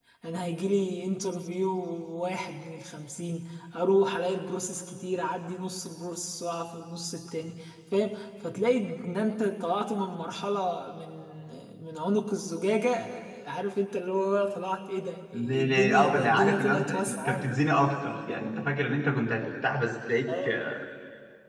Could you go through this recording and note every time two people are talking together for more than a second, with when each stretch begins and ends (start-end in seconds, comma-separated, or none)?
15.3-17.5